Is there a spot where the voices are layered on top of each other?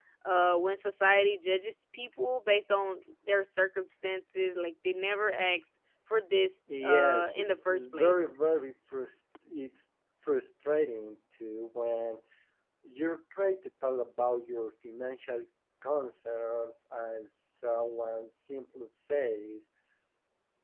Yes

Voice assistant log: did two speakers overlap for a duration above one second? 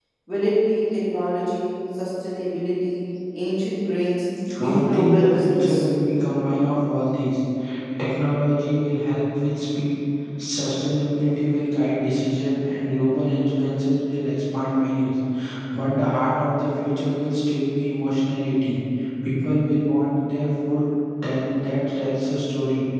Yes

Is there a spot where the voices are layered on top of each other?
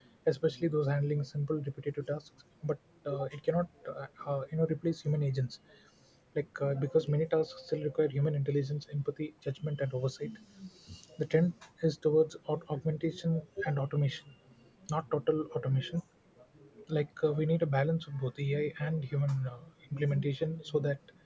No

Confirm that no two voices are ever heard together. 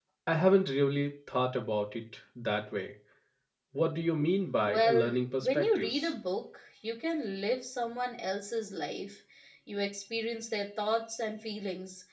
No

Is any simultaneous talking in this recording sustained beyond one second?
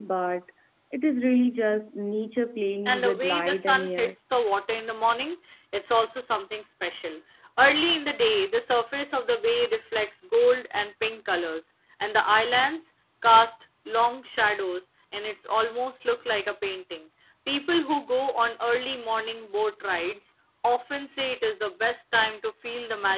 Yes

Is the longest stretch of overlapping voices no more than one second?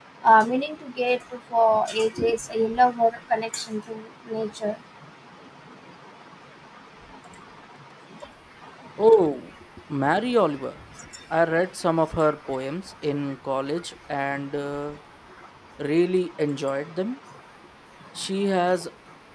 Yes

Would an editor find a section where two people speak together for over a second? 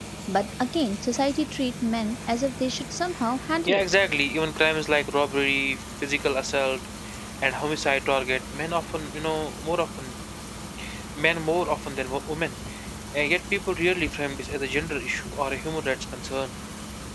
No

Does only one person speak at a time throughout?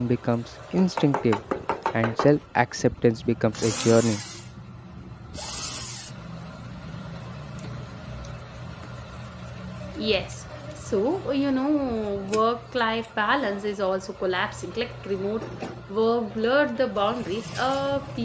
Yes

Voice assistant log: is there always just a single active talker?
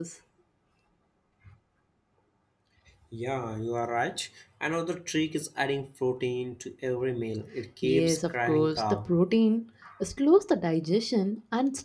No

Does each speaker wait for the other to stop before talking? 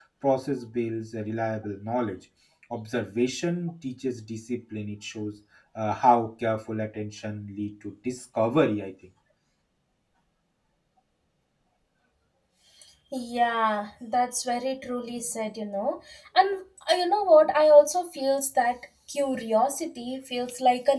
Yes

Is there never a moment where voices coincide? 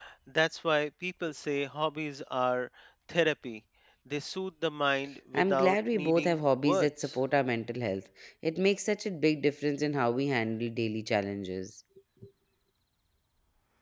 No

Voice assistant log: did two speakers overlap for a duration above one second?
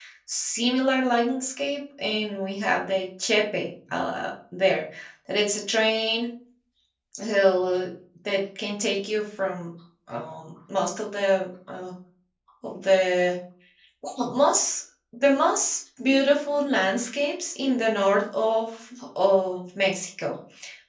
No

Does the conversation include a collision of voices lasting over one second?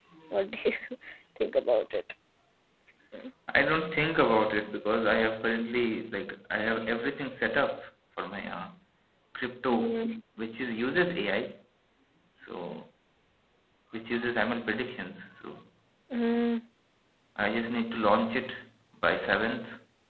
No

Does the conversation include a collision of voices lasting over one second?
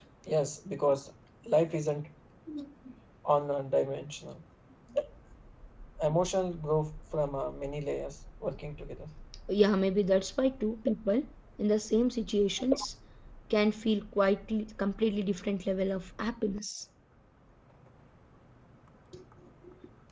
No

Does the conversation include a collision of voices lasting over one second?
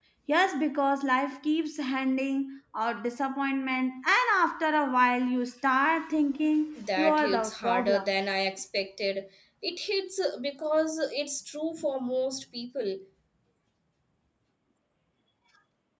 Yes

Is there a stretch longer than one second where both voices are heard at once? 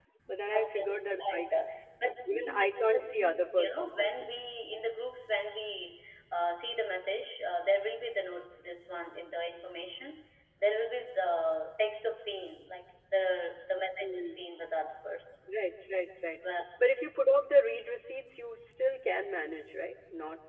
Yes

